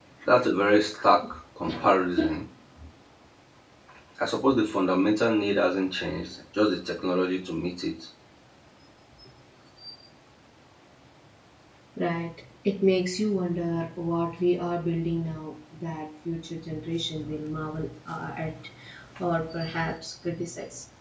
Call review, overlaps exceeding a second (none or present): none